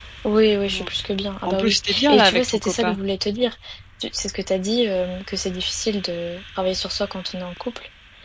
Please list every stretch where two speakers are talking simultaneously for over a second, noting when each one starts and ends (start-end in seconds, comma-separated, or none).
1.5-3.0